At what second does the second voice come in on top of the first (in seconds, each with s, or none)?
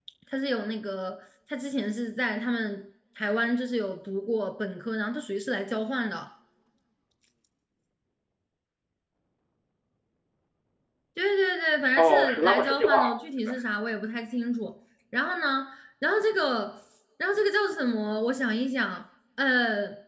12.0 s